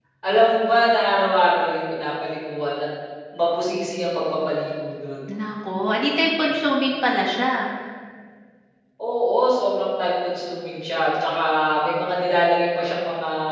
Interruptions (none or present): none